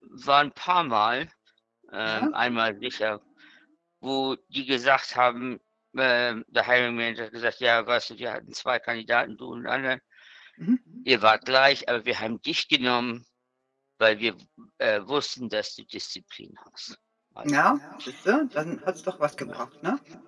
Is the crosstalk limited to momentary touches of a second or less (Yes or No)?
Yes